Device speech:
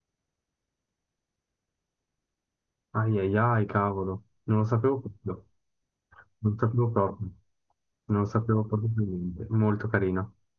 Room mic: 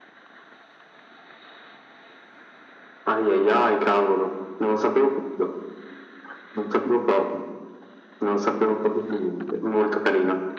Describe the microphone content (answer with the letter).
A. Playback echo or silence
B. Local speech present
A